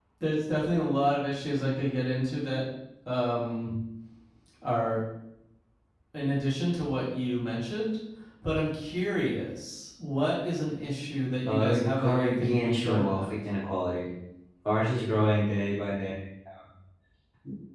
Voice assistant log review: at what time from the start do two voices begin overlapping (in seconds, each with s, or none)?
11.5 s